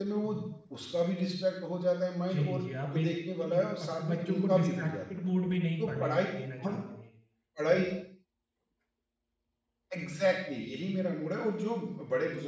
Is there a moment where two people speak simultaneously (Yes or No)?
Yes